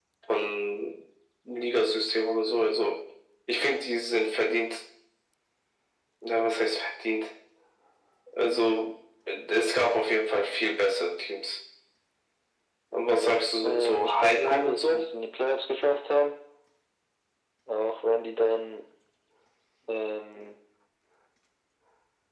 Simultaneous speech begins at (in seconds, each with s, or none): 13.6 s